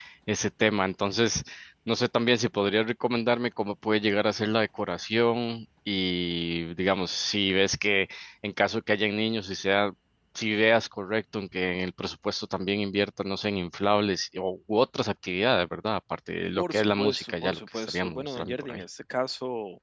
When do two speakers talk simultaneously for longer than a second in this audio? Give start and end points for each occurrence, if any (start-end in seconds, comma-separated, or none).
16.6-18.8